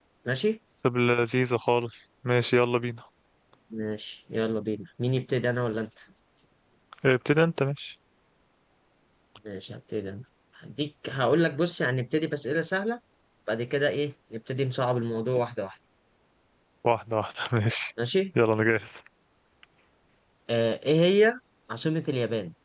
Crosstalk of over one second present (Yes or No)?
No